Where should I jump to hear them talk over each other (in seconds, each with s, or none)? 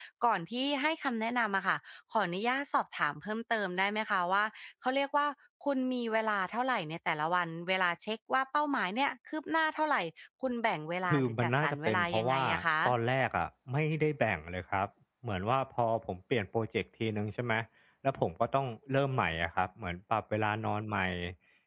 11.1 s